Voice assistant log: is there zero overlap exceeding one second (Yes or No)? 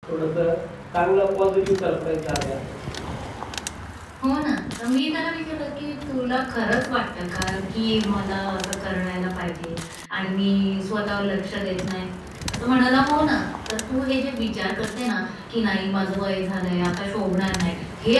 Yes